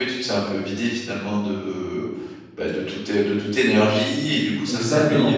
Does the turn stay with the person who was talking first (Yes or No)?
Yes